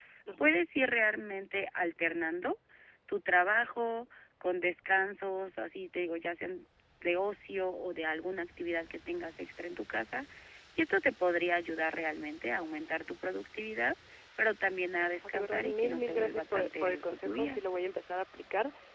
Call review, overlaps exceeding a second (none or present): present